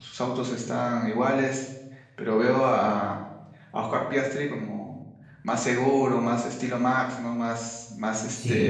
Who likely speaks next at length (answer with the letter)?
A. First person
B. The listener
A